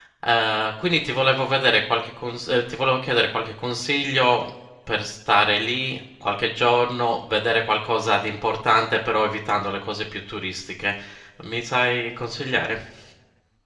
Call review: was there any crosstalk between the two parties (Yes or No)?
No